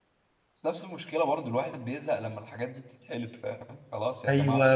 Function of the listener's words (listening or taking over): taking over